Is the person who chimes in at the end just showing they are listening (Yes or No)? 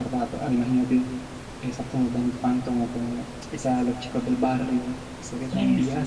No